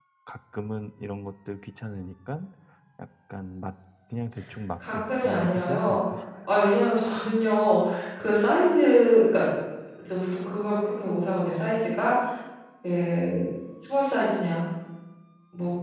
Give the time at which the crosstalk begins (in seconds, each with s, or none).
4.8 s